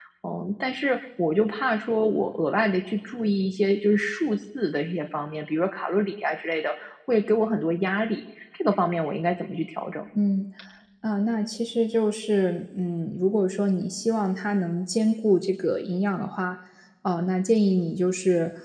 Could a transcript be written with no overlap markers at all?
Yes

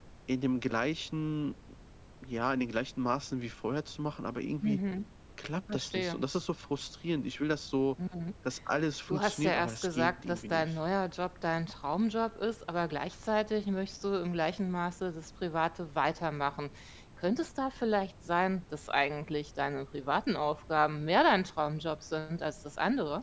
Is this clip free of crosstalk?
No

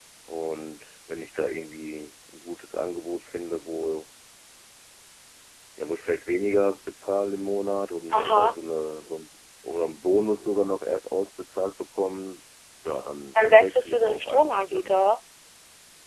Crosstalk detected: Yes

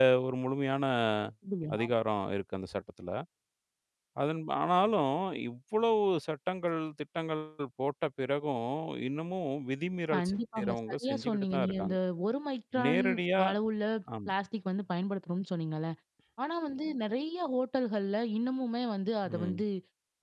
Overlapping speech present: Yes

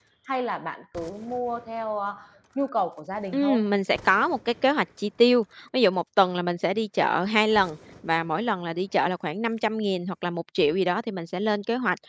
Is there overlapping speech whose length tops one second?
No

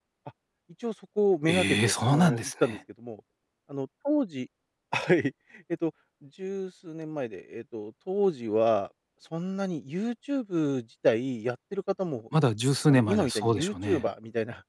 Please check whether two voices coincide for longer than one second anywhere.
Yes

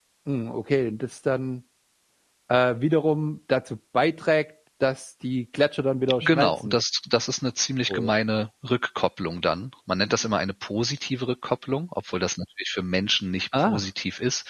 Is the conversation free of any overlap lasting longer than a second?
Yes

